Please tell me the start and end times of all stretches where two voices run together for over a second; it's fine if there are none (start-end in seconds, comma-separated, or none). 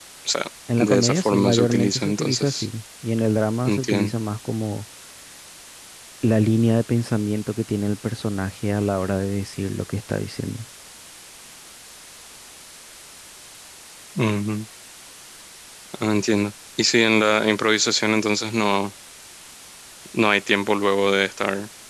0.8-2.7